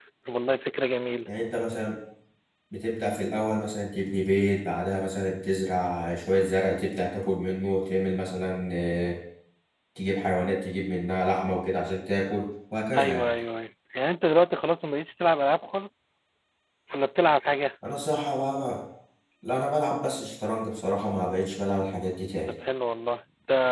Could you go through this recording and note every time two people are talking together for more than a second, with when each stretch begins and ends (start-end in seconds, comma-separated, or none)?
none